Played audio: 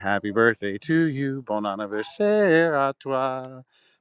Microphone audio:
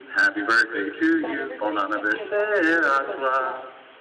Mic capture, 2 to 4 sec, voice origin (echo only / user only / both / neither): both